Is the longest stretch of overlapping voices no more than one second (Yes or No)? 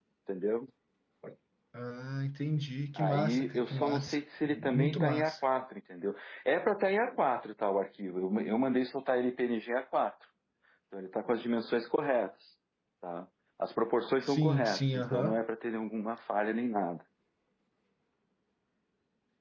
No